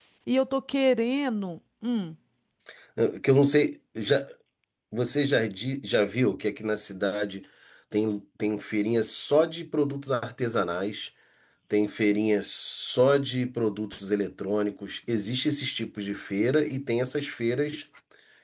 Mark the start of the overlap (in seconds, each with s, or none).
none